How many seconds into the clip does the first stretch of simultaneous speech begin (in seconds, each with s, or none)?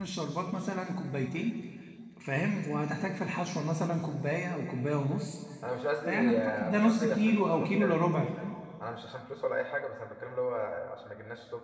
6.0 s